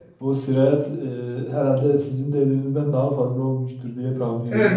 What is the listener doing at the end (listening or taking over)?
taking over